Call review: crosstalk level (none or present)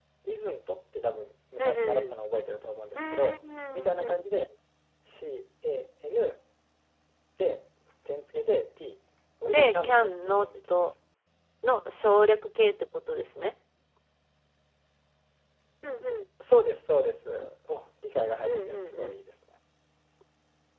present